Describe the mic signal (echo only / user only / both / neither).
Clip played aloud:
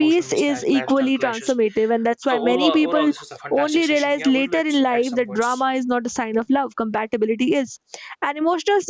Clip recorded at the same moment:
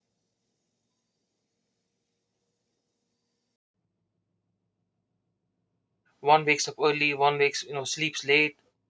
user only